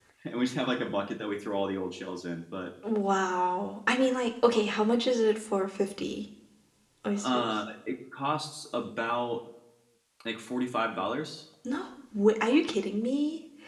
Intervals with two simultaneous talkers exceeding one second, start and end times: none

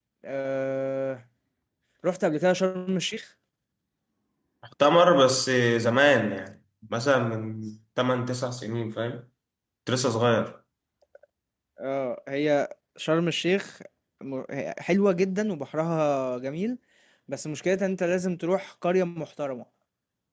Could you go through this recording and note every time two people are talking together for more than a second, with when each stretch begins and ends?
none

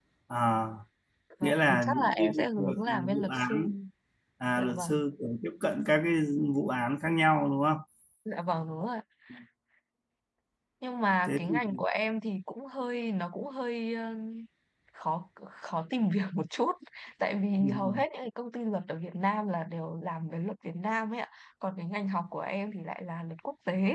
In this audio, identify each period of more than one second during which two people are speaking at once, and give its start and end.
1.4-3.7

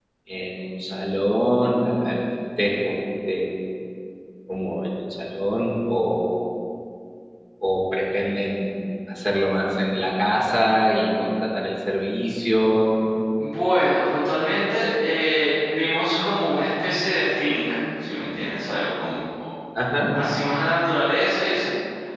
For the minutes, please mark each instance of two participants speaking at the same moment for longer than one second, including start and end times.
none

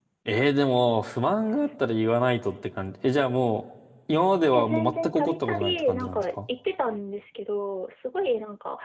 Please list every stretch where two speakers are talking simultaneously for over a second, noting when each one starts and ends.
4.5-6.2

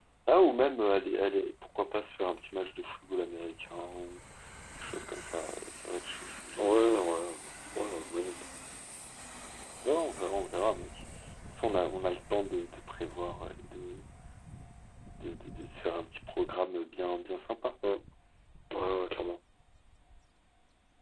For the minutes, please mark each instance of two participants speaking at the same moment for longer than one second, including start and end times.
none

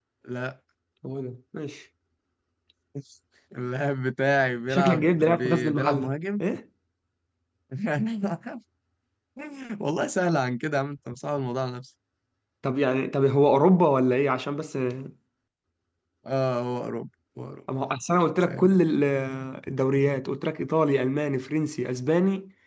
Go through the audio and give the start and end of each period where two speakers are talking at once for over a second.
4.7-6.1

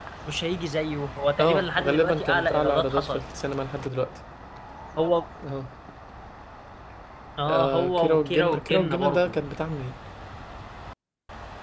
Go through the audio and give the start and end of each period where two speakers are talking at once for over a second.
1.4-3.2, 7.5-9.4

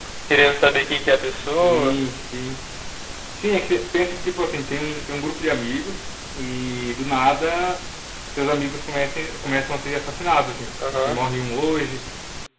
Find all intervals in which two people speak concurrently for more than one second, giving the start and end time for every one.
none

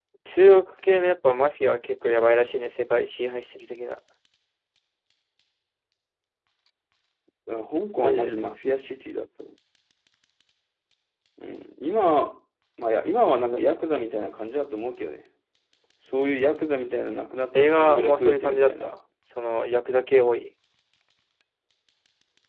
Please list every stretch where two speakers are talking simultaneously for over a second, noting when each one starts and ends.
17.5-18.9

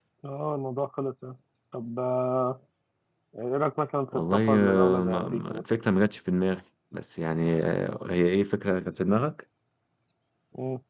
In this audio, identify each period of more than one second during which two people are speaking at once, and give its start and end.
4.1-5.6

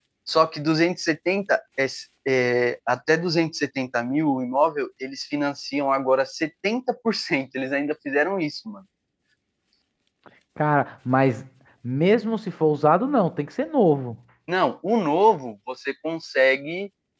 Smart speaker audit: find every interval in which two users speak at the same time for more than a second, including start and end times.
none

